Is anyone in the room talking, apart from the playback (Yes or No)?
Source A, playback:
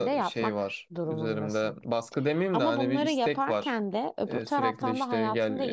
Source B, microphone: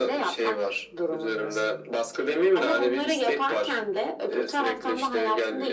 No